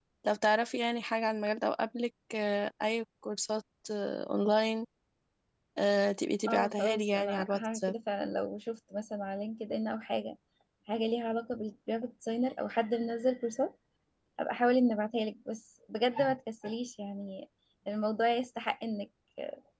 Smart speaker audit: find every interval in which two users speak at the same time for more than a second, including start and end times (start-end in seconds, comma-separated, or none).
6.5-7.9